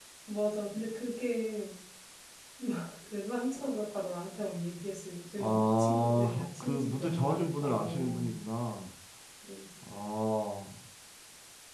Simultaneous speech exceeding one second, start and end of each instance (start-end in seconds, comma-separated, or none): 5.4-8.3